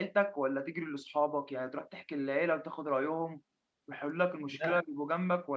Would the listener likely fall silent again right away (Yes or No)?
Yes